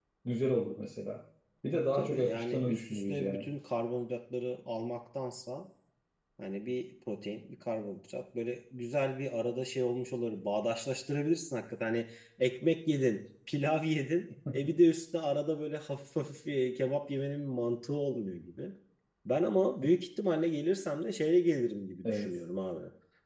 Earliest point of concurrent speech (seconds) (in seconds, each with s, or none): 1.8 s